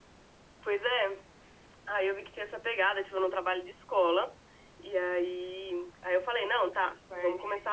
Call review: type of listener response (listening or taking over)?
listening